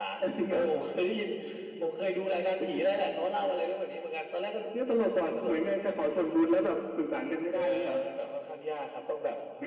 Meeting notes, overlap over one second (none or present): none